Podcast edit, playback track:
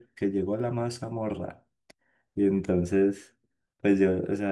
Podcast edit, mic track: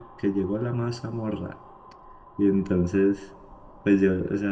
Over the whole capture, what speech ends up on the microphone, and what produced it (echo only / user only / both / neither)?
echo only